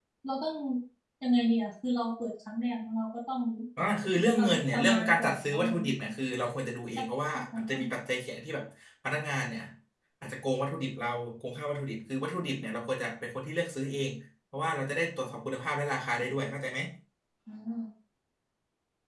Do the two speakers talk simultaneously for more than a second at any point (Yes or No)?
Yes